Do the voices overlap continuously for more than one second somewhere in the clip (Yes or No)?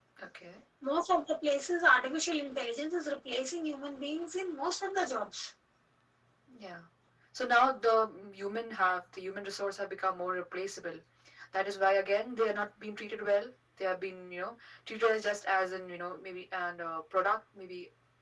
No